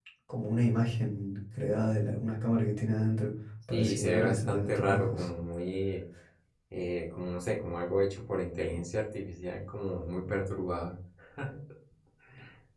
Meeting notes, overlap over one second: present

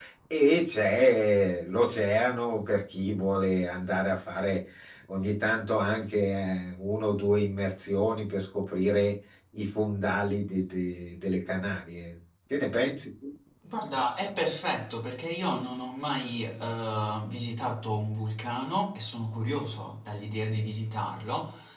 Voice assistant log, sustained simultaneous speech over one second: none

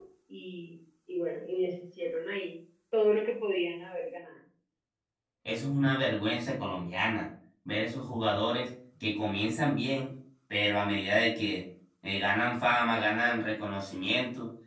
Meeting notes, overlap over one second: none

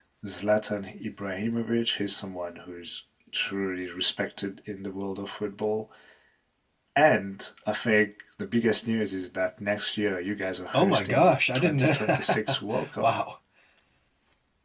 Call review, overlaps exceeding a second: present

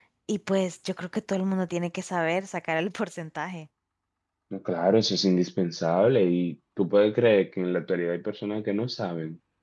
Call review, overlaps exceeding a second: none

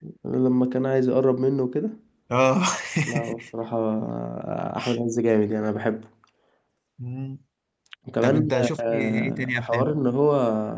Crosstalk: present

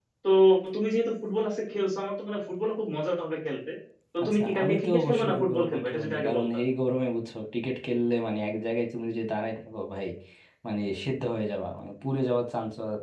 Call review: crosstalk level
present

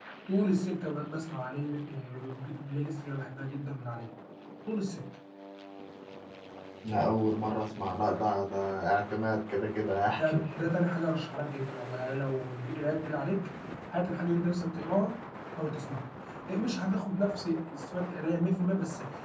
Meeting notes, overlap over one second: none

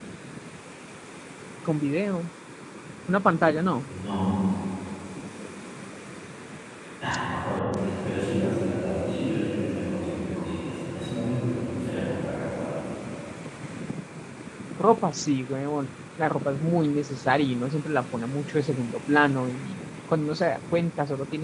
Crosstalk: none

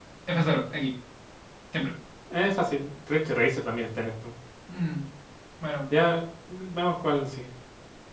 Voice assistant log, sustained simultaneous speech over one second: none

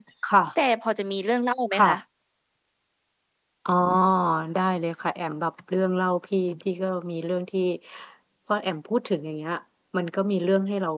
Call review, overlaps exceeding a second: none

